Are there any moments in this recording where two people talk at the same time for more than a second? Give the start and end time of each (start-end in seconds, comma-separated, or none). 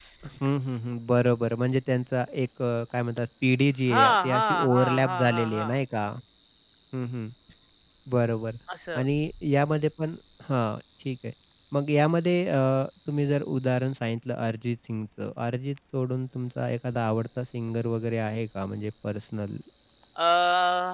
3.9-5.8